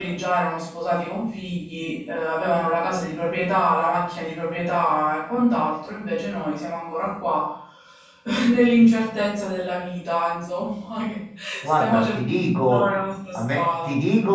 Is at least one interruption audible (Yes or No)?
Yes